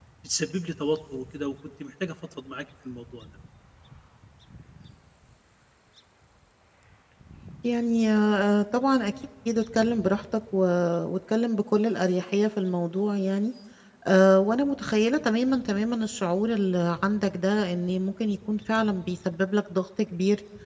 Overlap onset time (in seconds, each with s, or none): none